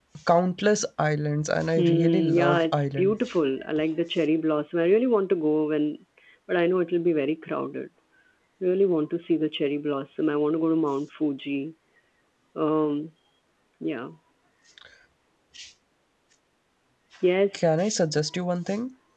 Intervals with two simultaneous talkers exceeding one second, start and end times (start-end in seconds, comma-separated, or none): 1.8-3.1